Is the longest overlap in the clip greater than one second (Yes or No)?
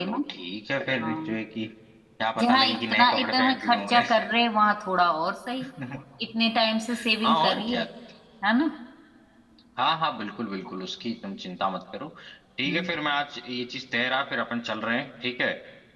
Yes